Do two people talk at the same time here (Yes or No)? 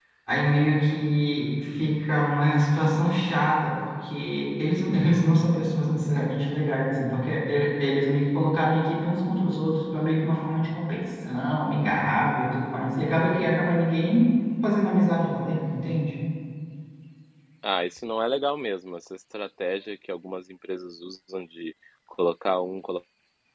No